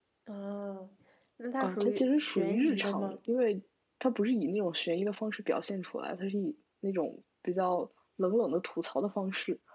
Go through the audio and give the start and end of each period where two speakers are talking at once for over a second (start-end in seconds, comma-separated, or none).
1.6-3.2